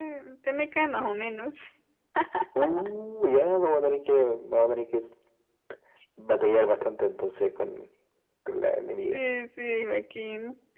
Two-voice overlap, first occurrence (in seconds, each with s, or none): none